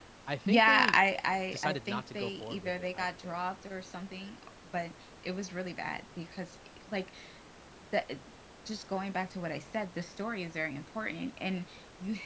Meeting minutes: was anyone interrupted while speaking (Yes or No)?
Yes